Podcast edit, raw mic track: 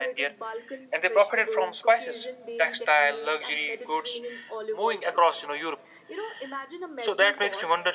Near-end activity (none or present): present